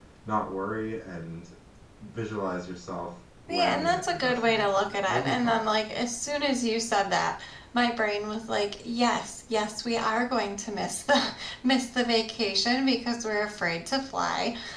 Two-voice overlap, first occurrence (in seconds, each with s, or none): 3.5 s